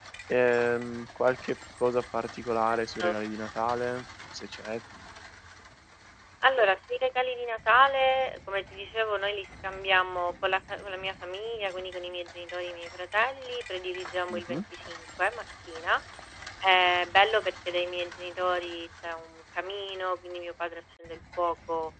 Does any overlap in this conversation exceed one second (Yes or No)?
No